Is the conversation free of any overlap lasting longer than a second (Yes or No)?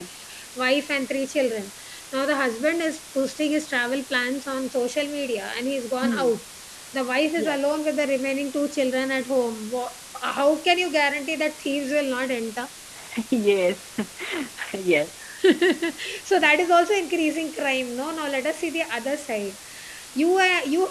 Yes